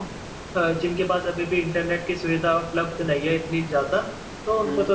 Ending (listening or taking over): listening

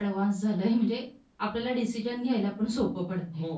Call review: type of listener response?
taking over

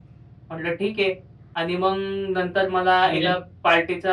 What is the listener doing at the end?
listening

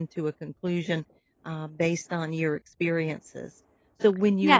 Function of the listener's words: listening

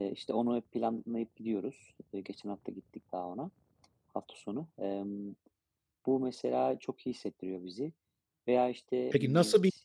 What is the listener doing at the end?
taking over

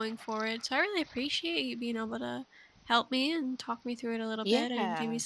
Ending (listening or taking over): listening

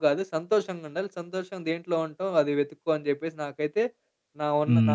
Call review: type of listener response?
taking over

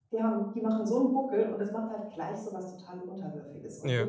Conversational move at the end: listening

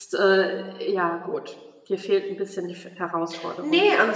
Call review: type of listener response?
taking over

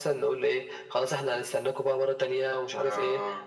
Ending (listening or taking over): listening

